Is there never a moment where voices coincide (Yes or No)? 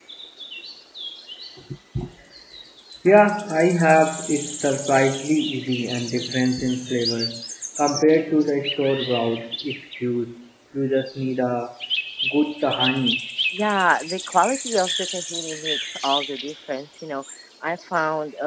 Yes